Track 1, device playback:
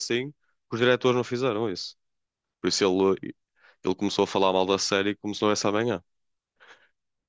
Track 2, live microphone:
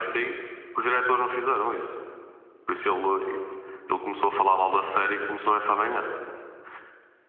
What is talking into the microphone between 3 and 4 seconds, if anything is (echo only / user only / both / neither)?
echo only